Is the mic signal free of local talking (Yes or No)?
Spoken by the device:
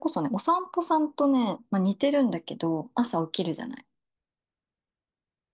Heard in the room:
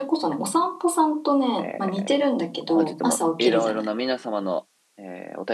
No